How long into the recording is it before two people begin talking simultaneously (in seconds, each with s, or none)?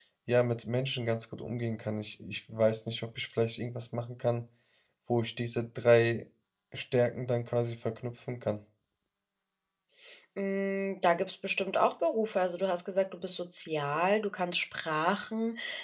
none